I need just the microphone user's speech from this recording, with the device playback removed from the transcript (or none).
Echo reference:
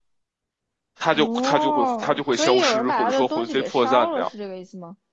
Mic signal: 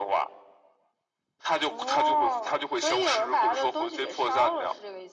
none